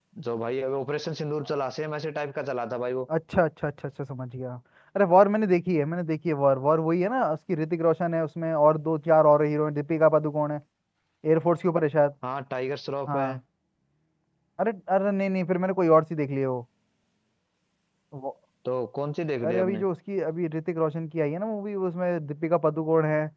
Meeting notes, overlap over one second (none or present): none